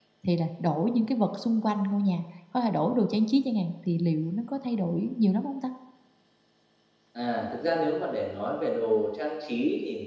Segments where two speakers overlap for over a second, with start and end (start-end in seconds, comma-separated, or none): none